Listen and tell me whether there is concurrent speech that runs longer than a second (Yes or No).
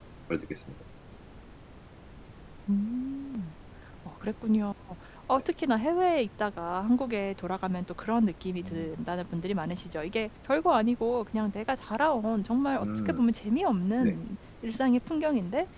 No